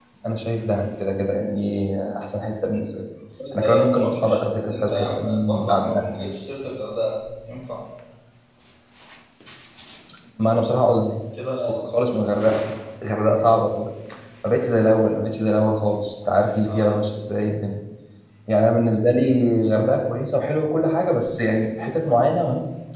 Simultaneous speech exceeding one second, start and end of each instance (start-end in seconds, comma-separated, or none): 3.5-6.3